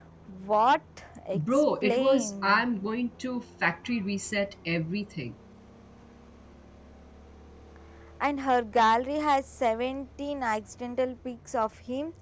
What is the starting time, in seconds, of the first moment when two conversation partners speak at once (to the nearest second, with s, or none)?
1 s